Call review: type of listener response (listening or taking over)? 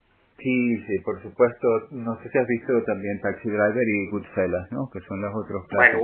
taking over